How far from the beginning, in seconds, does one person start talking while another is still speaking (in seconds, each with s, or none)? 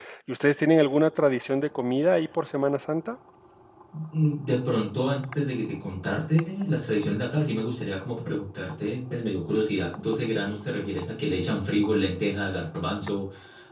none